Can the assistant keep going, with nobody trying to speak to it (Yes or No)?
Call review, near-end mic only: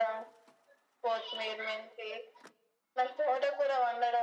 Yes